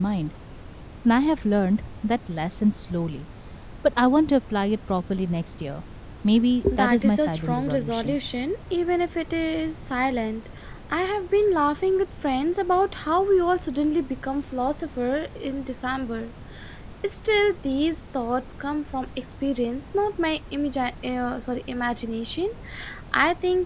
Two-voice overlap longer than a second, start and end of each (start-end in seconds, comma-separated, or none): 6.8-8.2